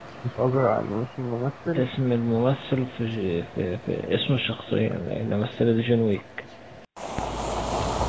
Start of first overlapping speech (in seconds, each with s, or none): none